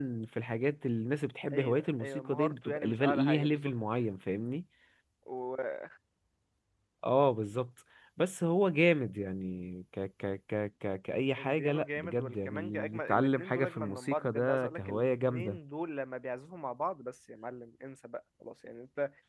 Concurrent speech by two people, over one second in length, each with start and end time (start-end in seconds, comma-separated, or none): 1.5-3.7, 11.4-15.6